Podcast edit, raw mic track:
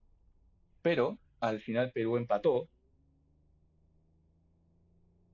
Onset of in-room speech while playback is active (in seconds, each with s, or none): 0.8 s